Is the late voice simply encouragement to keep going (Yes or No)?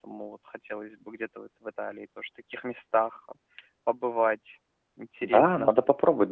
No